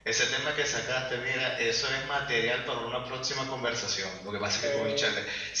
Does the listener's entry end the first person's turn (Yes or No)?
No